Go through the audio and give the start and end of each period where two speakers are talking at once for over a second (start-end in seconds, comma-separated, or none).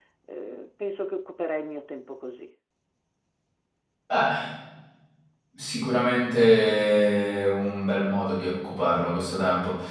none